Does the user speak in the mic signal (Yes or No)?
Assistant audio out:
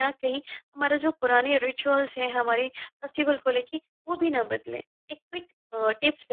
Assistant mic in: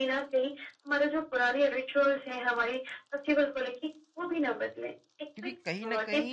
Yes